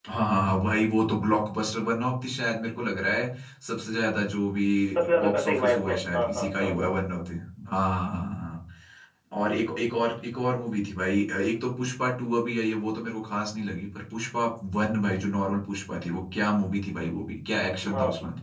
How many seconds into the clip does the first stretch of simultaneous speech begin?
5.2 s

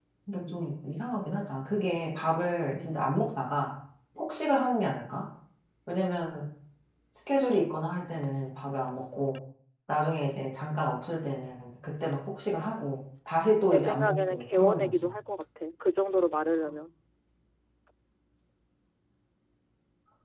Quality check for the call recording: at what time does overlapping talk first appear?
13.7 s

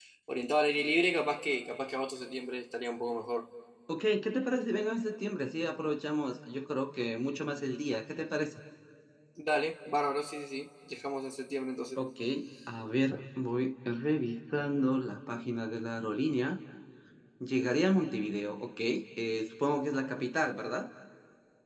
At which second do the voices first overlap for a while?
none

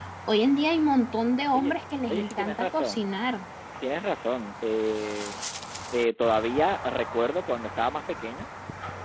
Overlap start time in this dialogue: 1.5 s

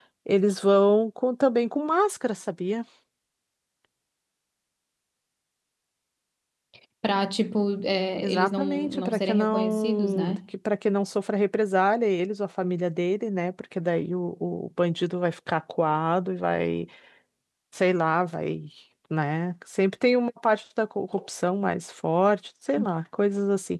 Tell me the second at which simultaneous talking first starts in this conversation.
8.2 s

